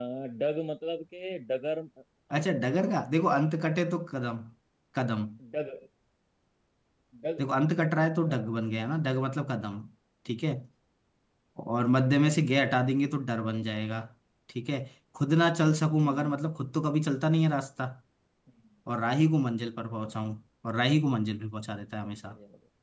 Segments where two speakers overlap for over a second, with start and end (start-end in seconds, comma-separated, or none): none